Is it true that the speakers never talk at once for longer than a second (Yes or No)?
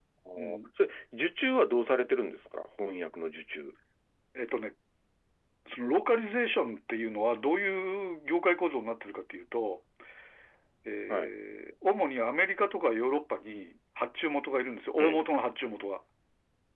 Yes